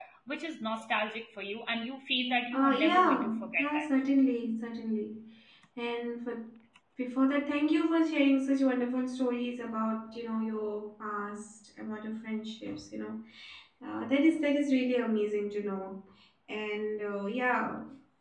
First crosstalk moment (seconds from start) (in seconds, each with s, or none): 2.5 s